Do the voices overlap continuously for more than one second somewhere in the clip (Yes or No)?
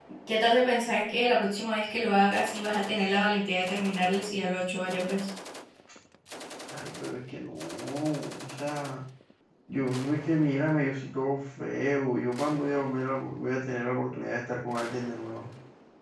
No